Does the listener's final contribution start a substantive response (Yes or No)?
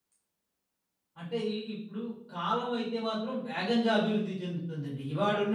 No